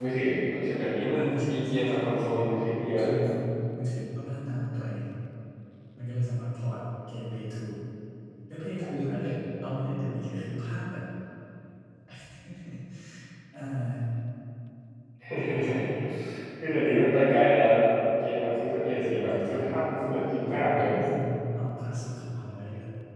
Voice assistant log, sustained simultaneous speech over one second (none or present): present